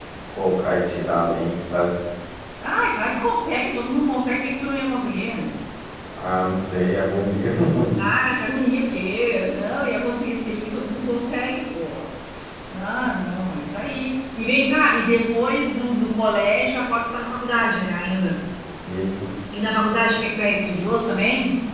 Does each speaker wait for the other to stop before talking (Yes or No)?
Yes